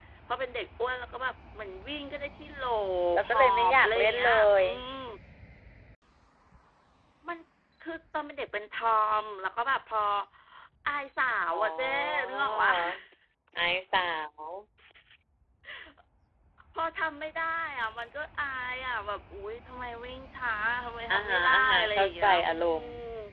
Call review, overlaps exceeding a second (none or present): present